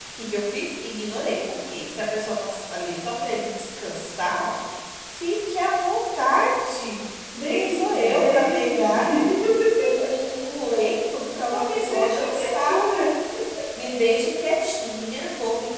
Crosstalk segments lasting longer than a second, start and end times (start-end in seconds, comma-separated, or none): 7.4-8.9, 11.5-13.1